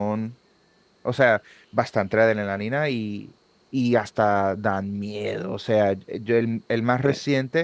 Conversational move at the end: listening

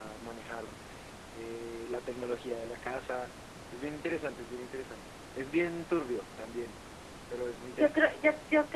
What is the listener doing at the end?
taking over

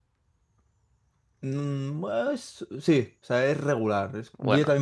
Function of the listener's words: listening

